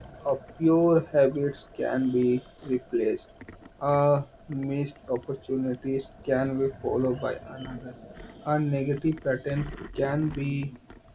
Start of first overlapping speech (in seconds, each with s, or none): none